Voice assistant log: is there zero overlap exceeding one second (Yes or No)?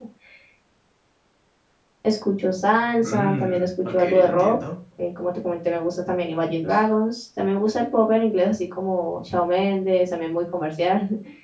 No